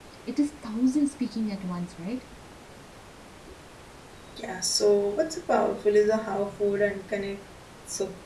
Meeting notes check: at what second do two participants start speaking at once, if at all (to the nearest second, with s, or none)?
none